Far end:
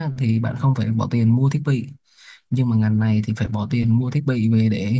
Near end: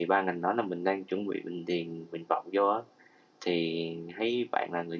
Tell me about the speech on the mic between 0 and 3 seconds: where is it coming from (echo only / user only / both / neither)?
user only